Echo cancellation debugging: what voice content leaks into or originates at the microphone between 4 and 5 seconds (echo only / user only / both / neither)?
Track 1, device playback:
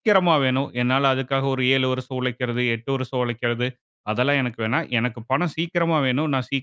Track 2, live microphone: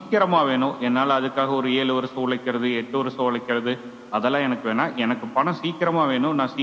echo only